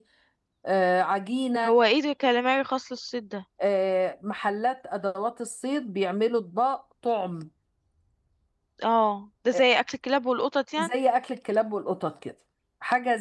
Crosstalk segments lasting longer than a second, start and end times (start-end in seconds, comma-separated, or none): none